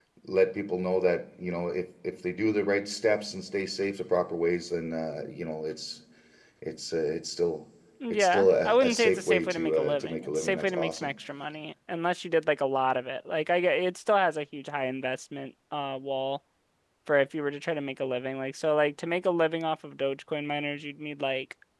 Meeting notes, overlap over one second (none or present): present